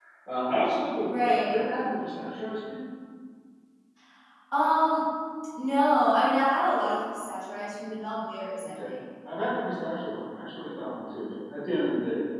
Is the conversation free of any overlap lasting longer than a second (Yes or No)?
Yes